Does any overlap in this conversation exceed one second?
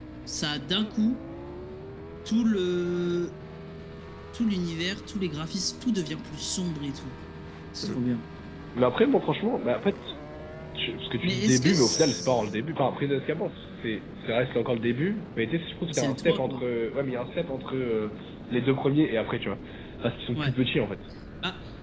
Yes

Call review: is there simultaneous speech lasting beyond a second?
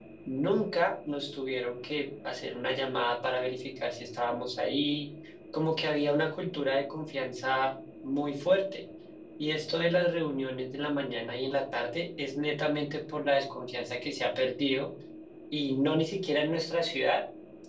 No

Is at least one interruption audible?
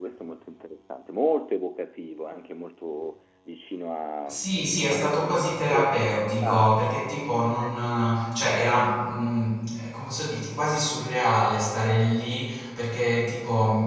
Yes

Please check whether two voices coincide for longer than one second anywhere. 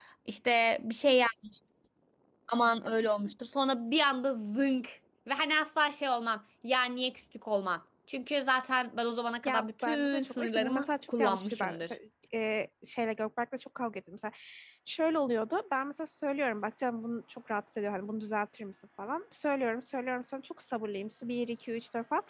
Yes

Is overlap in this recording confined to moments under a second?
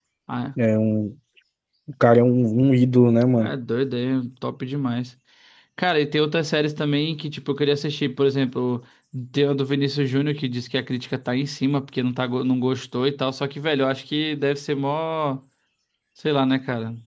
Yes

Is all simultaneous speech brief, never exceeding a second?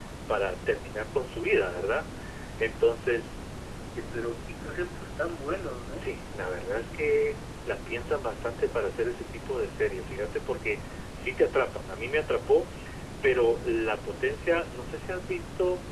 Yes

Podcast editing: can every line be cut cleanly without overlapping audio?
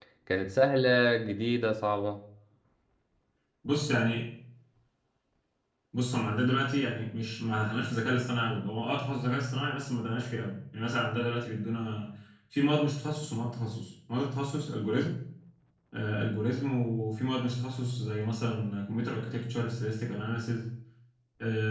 Yes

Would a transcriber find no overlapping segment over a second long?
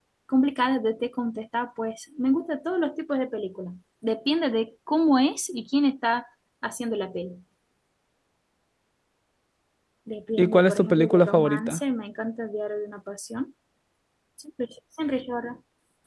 No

